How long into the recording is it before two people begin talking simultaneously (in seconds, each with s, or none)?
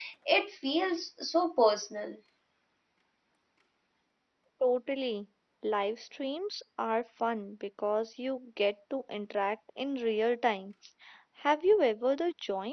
none